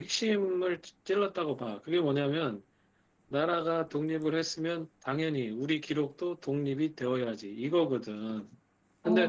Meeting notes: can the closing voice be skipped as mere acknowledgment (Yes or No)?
Yes